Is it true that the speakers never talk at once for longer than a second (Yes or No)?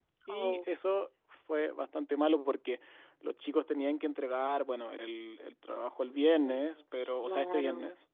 No